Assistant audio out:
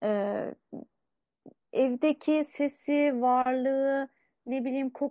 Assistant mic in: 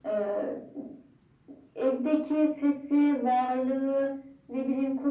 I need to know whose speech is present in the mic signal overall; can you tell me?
echo only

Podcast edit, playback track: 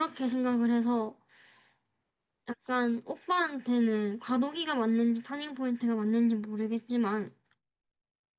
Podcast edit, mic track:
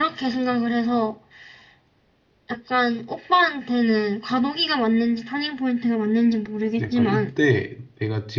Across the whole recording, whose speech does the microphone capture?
both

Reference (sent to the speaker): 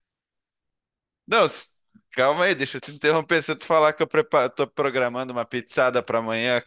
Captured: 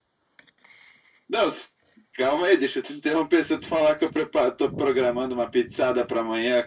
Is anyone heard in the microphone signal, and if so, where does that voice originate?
echo only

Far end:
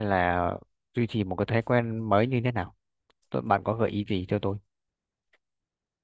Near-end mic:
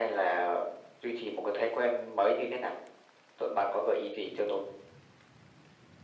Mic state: echo only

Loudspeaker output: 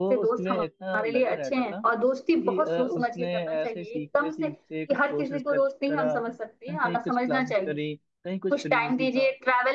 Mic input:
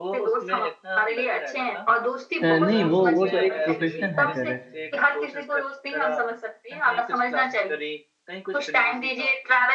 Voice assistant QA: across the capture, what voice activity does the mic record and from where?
both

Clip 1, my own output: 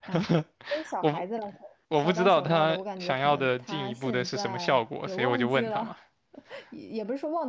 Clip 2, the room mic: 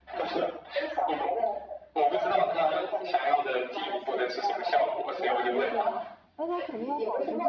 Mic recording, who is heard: both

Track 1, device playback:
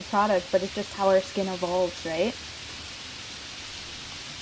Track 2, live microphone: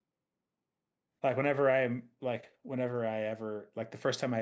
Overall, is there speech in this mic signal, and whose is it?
user only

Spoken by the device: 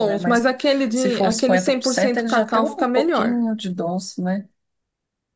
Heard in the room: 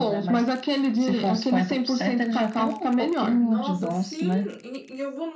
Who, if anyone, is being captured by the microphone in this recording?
both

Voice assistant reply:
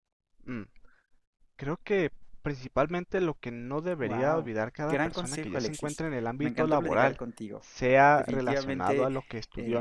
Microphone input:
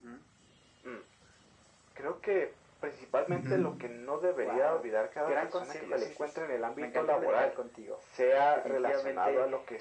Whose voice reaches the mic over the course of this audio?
both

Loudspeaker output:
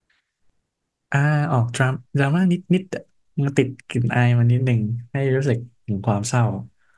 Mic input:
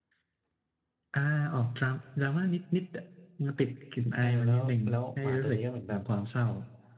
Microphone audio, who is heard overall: both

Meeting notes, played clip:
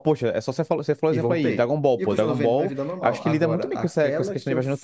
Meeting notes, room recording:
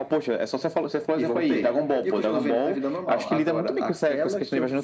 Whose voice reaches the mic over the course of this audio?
echo only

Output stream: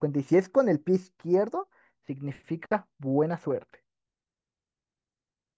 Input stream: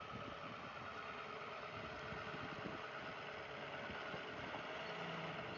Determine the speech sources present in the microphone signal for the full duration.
neither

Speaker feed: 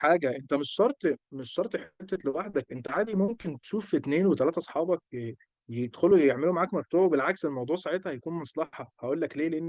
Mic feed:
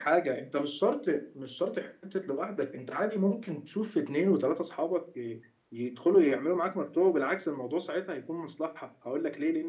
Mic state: echo only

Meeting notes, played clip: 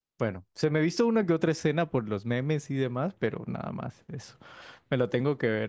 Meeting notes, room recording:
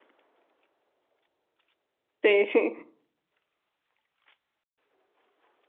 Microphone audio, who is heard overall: user only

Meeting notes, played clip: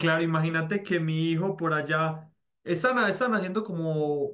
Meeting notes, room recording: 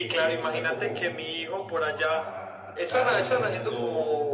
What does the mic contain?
both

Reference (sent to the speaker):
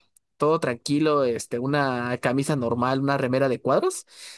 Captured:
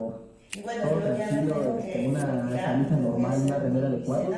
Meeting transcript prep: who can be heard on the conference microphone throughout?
both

